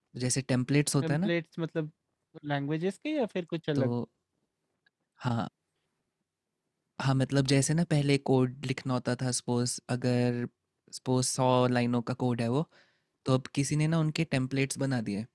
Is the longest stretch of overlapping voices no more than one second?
Yes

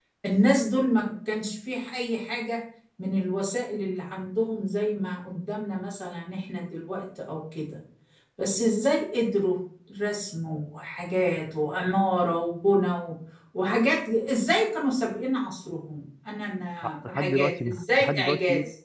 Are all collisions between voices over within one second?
No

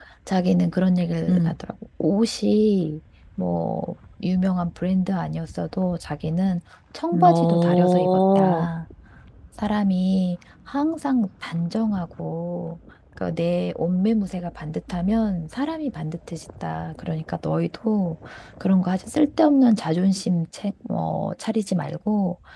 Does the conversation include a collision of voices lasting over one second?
Yes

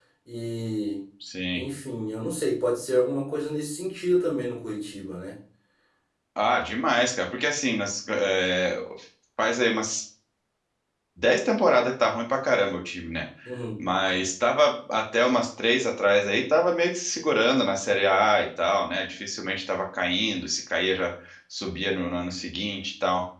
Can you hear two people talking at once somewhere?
No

